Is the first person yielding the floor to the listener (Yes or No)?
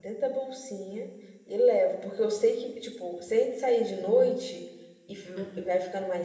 No